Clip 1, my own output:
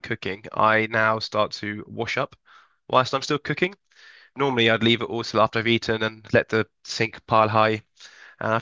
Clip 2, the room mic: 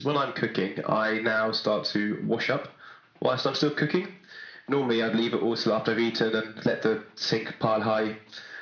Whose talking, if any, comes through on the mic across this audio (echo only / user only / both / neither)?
echo only